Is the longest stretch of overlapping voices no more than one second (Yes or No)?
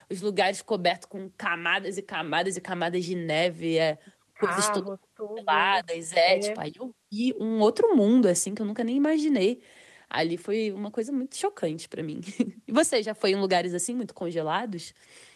Yes